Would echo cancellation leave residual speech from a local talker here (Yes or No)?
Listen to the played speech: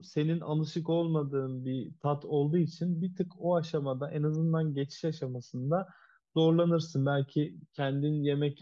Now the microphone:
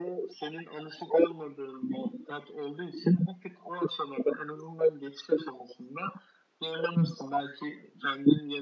No